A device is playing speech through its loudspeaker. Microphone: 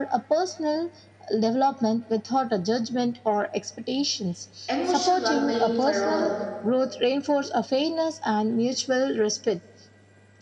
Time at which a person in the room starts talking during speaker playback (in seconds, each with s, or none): 4.7 s